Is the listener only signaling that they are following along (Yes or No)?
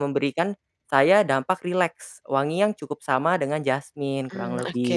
No